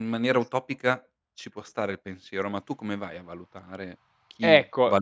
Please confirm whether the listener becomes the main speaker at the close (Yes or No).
Yes